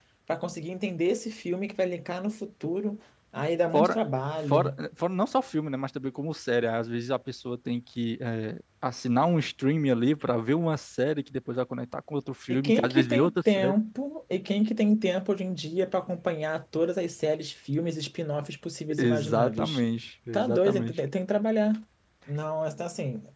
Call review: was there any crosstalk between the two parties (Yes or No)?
Yes